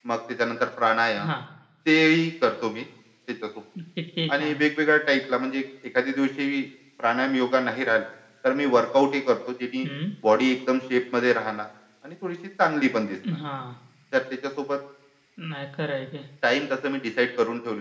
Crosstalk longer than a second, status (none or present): none